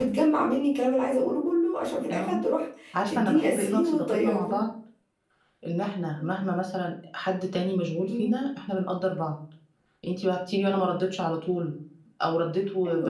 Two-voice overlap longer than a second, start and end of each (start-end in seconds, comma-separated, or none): 3.1-4.6